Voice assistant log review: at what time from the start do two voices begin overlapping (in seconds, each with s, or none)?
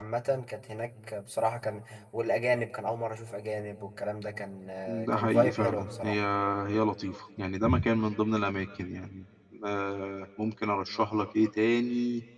4.9 s